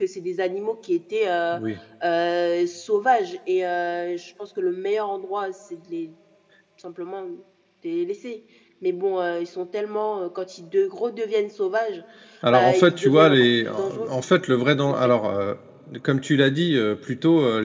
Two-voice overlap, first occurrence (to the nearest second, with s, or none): 13 s